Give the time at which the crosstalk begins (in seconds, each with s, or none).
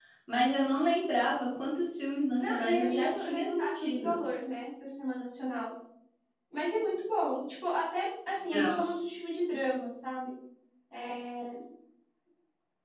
2.4 s